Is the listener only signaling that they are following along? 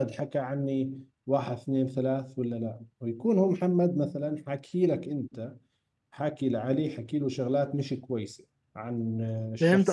No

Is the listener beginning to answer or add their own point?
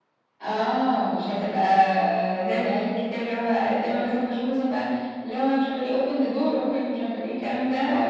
Yes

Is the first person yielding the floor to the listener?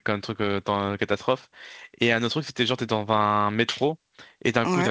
No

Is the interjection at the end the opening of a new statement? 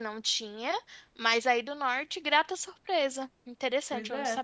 Yes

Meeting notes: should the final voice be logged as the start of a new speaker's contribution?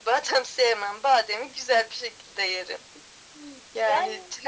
No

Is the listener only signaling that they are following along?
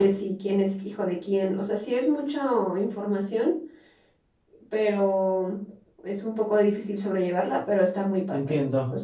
No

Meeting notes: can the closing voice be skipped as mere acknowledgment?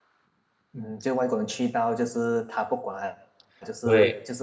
Yes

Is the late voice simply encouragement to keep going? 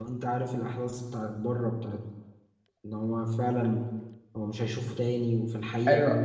No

